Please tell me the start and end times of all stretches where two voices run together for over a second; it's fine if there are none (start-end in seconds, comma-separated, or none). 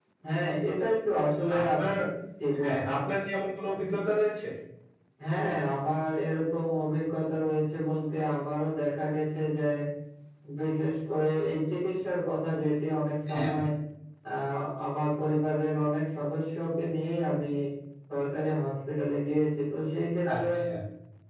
none